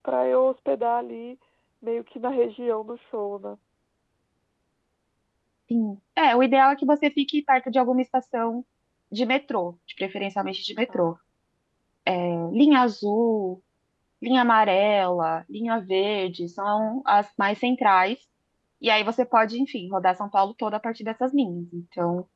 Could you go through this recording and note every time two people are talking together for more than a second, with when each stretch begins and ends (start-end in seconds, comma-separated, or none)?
none